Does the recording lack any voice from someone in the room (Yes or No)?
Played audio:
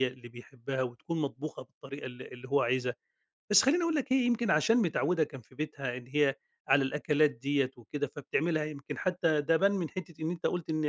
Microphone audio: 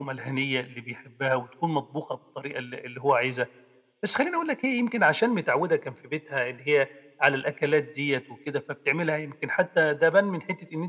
Yes